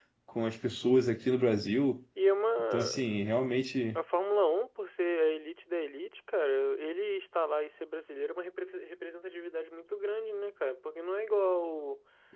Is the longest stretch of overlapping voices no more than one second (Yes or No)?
Yes